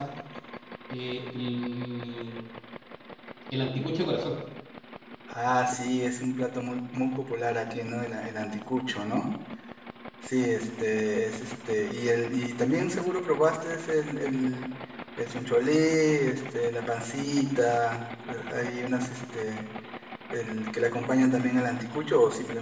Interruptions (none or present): none